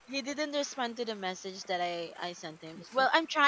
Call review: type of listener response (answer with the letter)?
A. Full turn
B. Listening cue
B